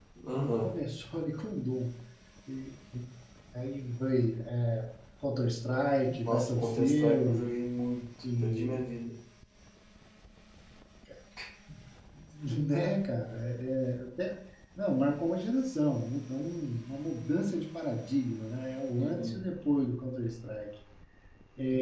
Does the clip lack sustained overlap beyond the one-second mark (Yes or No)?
No